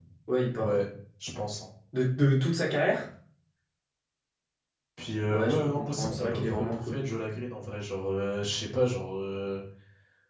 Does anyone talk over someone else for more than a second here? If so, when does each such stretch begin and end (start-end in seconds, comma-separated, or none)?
5.3-7.0